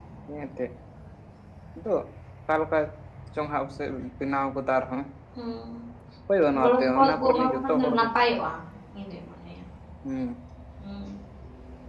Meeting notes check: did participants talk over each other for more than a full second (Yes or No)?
Yes